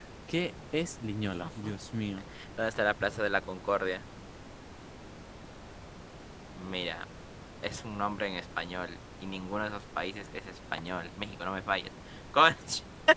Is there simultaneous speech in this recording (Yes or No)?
No